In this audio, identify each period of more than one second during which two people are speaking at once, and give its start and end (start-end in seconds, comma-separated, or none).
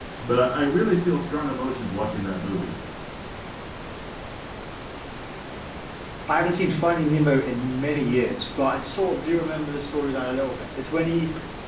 none